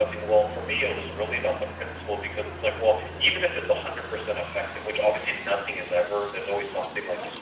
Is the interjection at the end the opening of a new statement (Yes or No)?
No